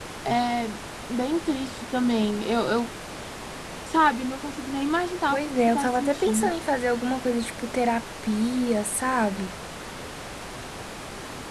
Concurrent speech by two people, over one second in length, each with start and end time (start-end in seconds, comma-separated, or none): 5.3-6.5